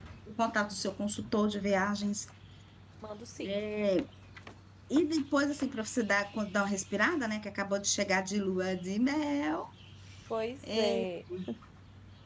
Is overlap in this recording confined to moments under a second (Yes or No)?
Yes